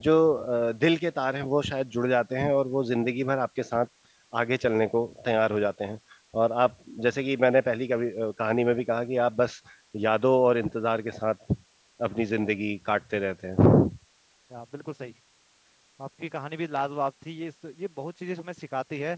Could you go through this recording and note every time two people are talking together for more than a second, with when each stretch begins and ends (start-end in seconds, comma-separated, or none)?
none